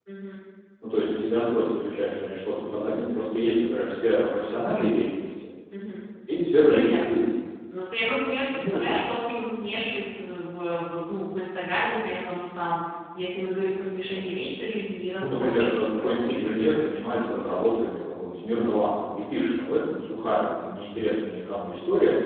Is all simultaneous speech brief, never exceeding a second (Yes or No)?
No